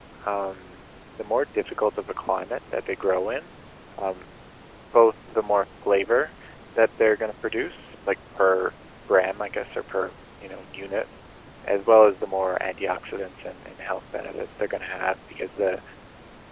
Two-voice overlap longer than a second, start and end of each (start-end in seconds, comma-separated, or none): none